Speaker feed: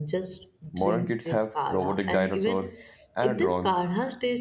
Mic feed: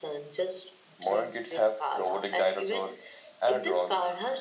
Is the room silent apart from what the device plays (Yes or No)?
Yes